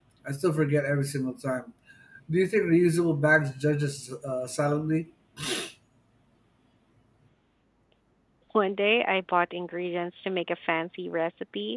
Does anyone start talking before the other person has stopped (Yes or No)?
No